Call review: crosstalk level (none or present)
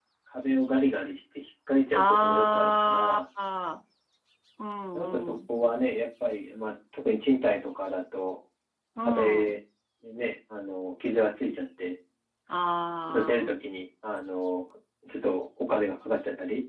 present